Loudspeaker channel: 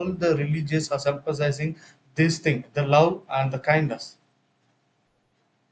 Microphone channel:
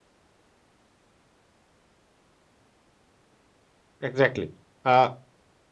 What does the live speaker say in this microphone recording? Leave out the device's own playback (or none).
exactly uh,